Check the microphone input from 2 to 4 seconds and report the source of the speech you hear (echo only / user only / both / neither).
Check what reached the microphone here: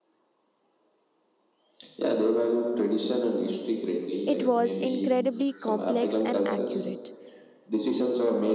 echo only